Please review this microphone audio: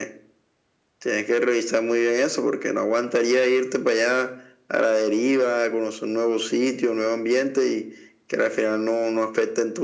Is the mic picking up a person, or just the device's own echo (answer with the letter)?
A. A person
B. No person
B